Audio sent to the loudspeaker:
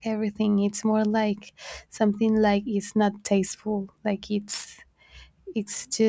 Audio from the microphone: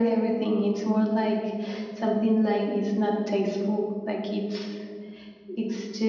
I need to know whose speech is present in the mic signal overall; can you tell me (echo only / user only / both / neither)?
echo only